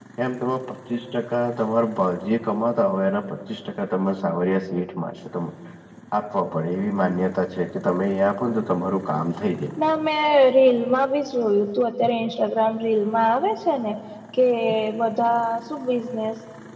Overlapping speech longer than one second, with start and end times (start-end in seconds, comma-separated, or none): none